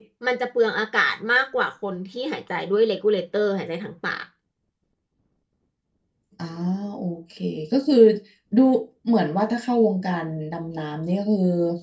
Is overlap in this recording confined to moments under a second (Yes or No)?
Yes